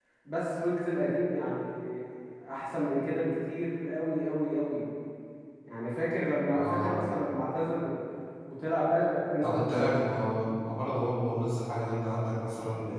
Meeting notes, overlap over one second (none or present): none